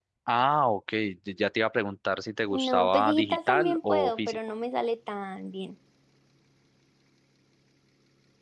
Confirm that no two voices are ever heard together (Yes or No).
No